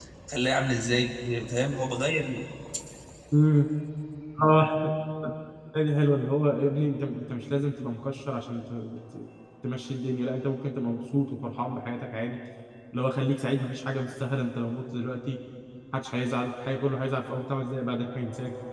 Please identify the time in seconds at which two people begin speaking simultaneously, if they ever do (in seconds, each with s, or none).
none